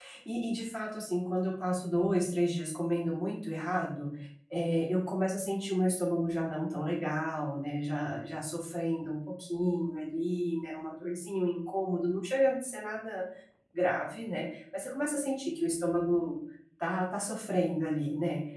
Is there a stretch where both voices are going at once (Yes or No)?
No